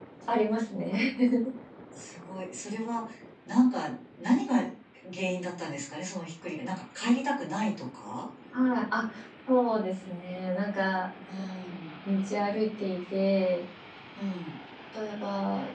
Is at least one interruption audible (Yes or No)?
No